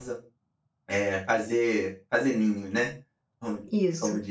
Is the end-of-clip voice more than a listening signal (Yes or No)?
No